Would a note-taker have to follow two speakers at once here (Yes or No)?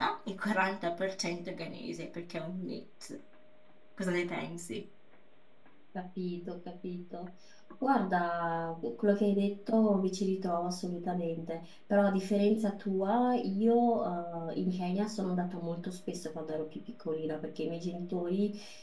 No